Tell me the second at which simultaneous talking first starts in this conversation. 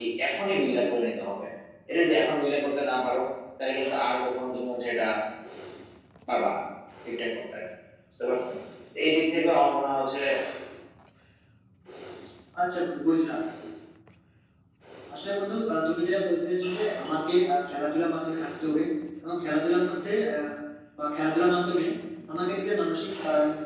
none

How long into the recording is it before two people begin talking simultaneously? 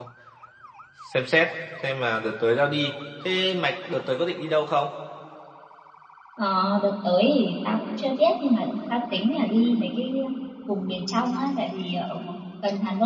none

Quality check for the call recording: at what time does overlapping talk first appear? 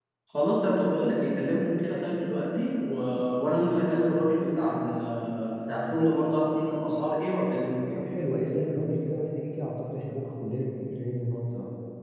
none

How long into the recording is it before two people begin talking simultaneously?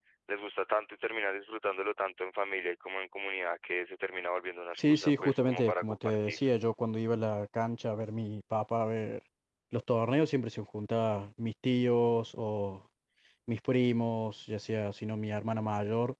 4.8 s

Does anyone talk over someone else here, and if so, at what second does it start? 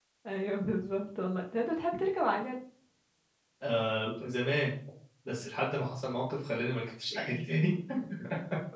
none

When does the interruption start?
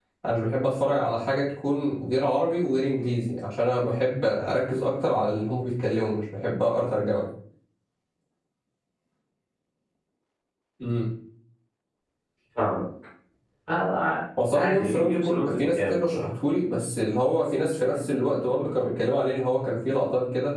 14.5 s

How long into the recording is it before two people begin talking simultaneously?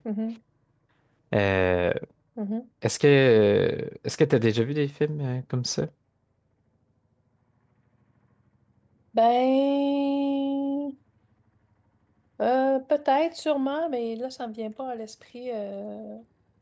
none

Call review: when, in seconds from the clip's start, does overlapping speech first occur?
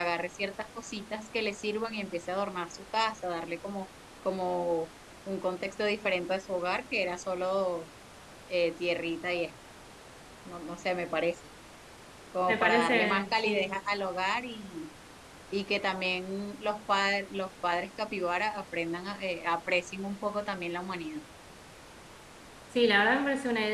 12.5 s

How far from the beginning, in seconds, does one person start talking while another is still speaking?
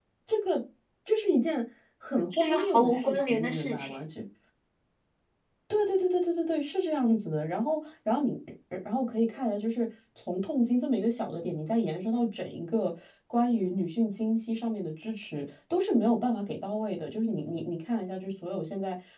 2.3 s

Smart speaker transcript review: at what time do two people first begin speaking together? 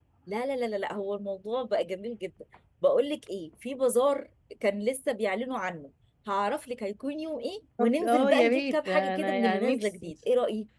7.8 s

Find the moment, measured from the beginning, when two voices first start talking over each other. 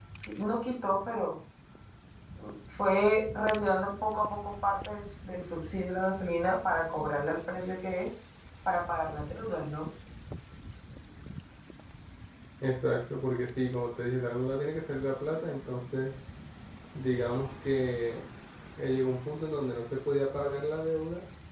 none

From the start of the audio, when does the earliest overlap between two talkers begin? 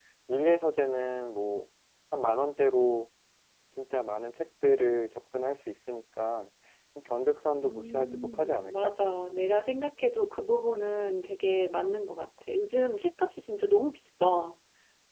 7.6 s

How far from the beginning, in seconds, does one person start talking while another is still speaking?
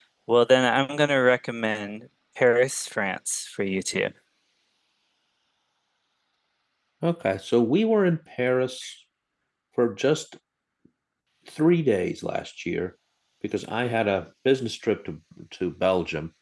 none

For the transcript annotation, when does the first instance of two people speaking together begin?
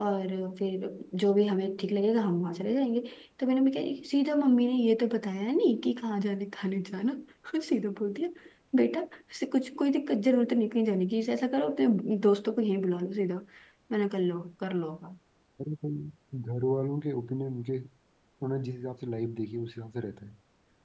none

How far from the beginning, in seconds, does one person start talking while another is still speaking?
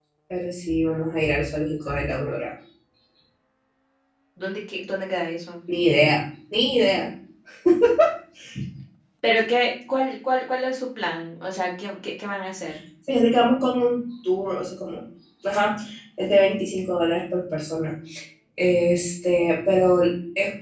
none

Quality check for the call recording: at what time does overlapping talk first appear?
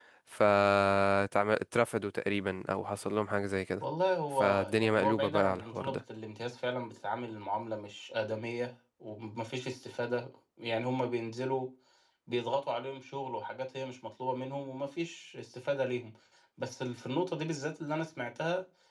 4.3 s

